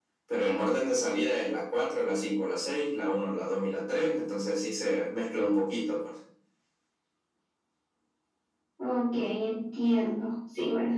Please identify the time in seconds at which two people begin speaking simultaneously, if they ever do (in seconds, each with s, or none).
none